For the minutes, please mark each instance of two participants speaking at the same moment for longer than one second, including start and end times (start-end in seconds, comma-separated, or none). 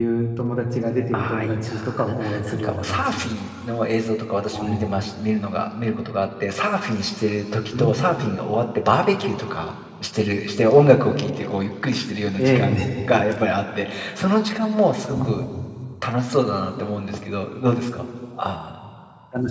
1.1-3.3